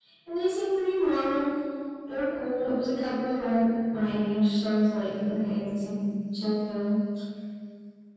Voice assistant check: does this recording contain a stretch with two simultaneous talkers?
No

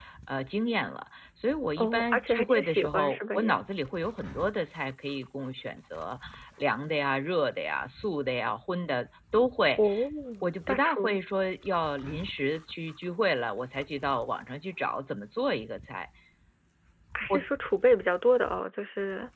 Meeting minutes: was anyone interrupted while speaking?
Yes, from 1.8 s

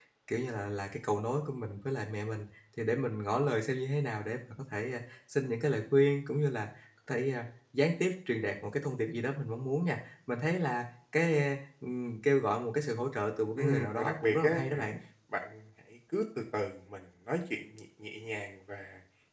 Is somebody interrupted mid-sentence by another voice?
Yes, from 13.6 s

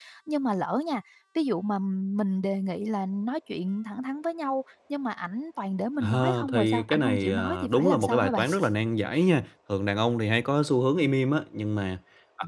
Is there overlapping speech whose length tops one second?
Yes, from 6.0 s

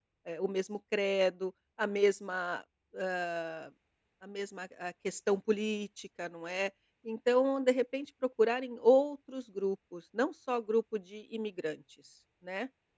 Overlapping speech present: No

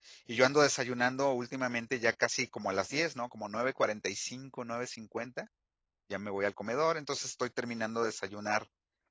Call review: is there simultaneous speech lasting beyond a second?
No

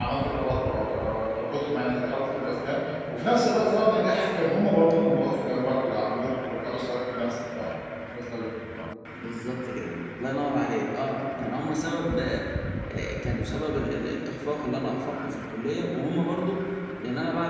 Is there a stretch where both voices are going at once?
No

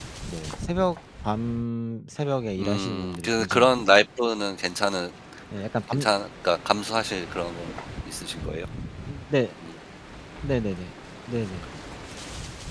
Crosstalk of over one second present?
Yes, from 2.6 s

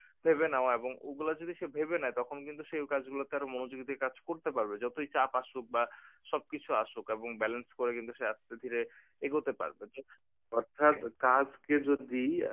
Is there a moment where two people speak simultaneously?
No

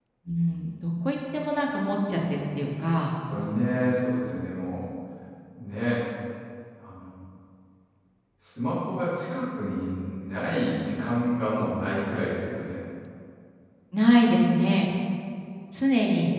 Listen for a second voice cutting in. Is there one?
No

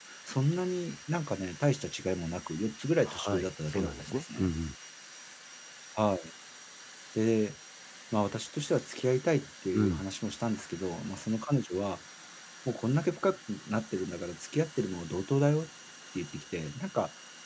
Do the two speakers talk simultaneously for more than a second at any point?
Yes, from 3.1 s

